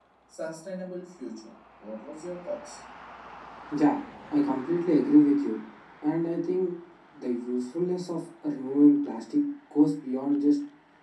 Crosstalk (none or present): none